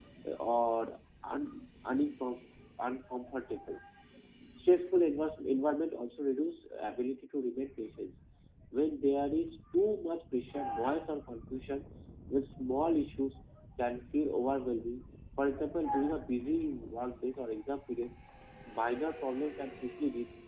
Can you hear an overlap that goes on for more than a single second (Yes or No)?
No